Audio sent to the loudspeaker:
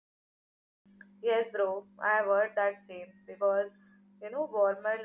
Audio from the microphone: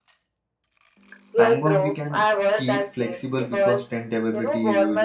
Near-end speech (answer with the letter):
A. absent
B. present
B